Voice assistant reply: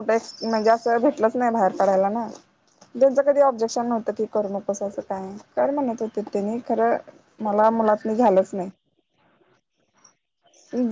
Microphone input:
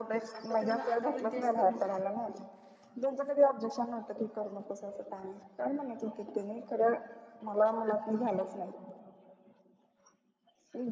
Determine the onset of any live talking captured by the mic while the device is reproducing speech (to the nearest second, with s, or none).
0 s